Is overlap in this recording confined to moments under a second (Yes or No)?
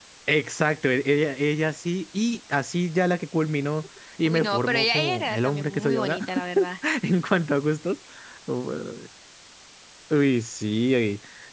No